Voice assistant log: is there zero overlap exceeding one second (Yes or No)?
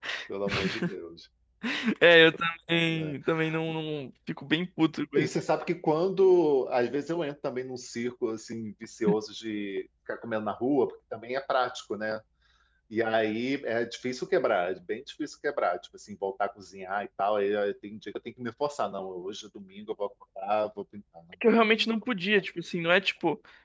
Yes